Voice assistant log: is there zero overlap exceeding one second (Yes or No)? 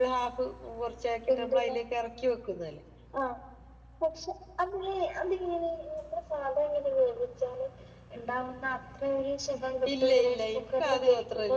No